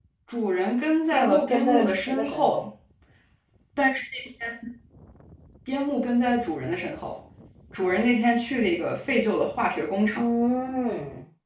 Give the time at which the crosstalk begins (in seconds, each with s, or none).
1.1 s